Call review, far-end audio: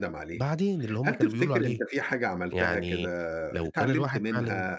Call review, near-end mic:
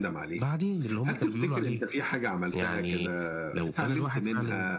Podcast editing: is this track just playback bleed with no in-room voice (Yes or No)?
Yes